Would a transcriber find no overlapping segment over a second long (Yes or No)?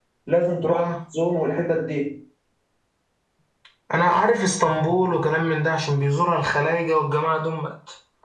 Yes